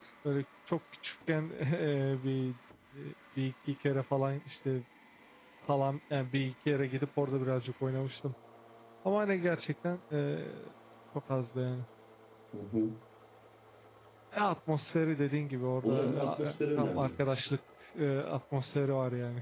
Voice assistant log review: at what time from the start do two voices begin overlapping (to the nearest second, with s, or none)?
16 s